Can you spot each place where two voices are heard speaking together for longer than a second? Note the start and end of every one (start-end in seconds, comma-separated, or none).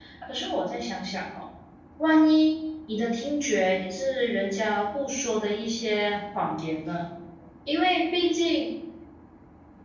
none